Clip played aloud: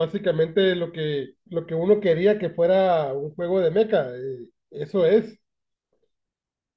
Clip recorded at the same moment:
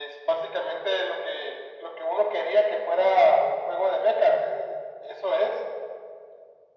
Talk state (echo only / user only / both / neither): echo only